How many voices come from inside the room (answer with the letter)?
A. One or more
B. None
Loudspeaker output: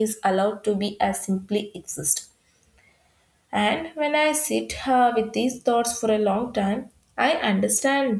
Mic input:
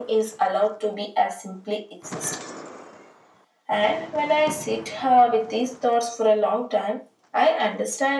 B